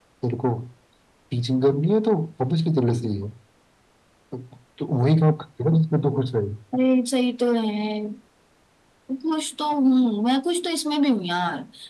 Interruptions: none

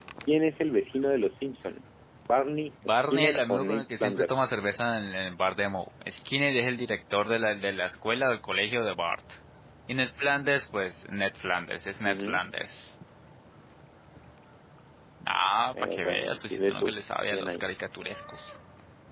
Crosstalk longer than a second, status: present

